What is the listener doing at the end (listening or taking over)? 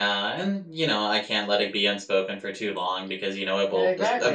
taking over